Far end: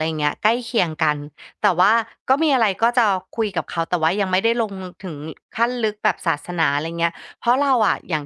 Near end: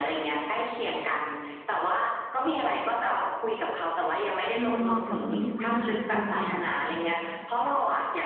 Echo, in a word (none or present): present